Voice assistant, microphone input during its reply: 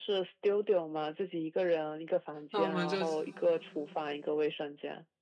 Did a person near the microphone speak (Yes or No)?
Yes